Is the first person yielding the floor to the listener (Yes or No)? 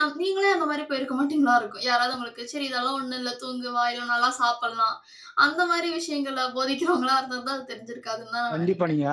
Yes